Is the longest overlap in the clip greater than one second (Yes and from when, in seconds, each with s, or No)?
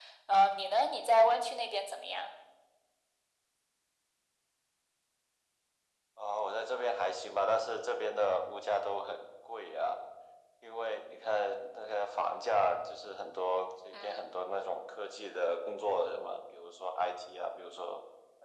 No